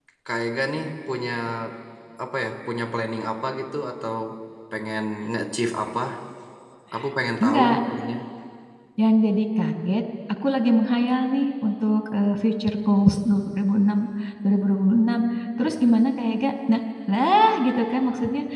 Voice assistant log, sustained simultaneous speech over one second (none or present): none